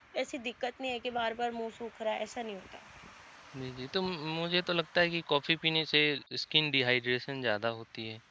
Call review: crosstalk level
none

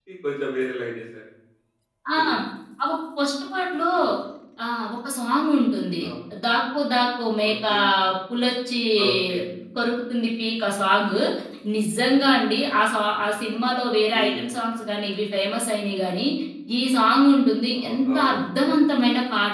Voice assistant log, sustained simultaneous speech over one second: none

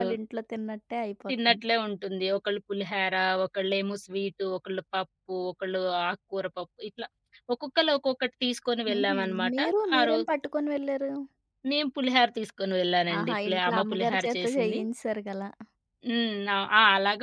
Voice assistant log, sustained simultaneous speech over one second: present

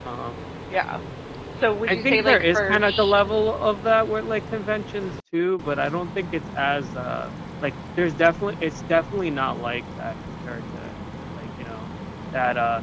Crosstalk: present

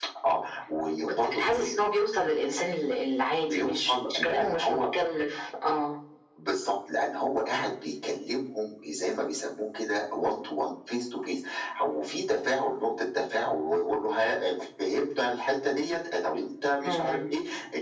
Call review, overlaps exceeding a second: present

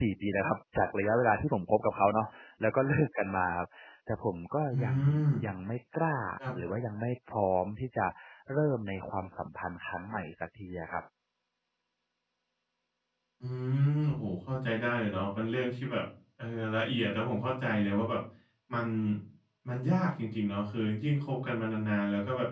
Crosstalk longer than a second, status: none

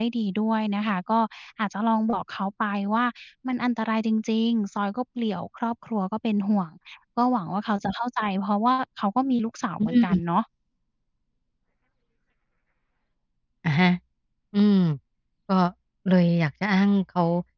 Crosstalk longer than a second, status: none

